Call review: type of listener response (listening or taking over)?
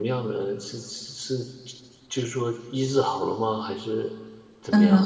taking over